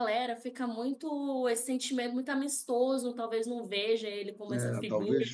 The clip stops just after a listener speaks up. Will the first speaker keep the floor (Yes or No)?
No